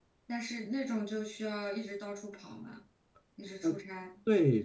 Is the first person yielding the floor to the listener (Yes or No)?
Yes